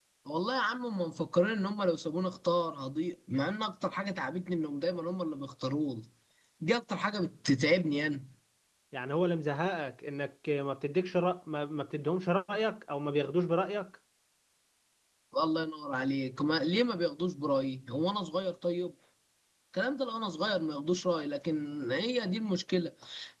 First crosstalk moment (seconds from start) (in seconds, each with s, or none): none